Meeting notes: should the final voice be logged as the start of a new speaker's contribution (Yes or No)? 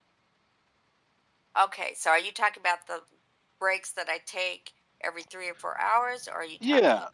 Yes